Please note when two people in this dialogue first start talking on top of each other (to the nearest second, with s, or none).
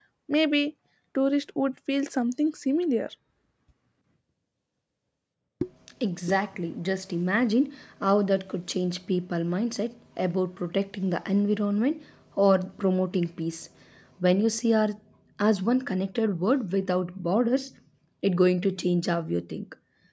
none